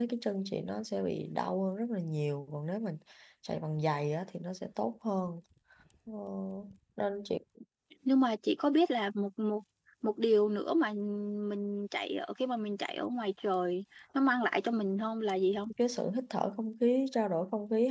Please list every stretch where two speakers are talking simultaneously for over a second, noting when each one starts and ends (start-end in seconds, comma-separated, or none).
none